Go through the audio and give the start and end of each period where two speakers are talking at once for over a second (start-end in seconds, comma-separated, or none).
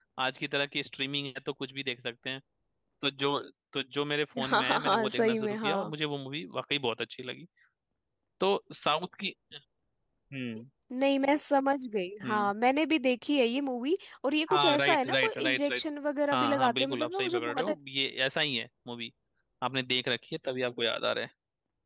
4.4-5.9, 14.5-15.8, 16.3-17.7